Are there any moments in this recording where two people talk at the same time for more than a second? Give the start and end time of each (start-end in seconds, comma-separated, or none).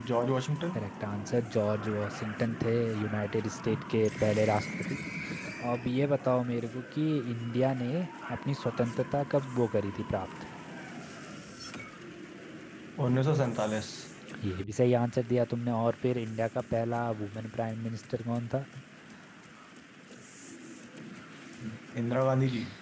none